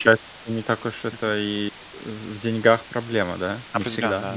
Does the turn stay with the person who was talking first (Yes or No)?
No